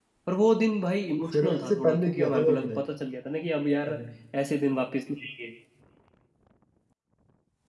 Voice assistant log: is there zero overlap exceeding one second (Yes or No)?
No